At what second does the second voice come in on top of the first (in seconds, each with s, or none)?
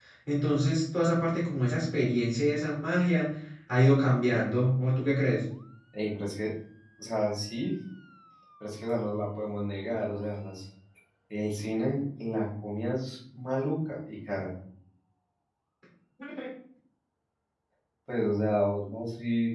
none